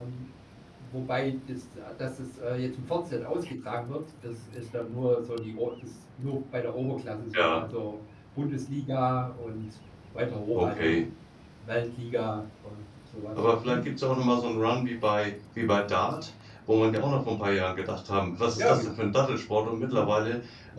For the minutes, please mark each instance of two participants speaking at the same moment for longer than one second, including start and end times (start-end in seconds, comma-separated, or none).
none